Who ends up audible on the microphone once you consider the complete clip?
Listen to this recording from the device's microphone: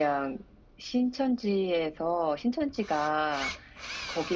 echo only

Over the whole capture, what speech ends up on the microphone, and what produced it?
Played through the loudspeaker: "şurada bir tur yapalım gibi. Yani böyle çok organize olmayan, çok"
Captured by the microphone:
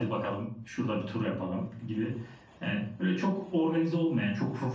echo only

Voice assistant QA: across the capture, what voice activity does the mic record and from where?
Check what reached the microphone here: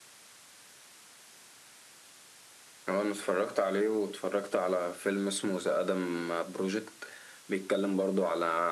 echo only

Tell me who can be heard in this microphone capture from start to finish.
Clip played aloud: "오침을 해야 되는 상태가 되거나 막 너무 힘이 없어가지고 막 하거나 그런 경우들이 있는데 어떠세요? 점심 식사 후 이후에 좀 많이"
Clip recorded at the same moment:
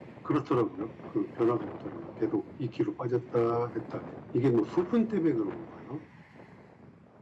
user only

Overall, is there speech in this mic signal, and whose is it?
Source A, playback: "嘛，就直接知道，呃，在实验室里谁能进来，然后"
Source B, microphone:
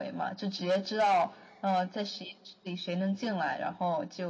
echo only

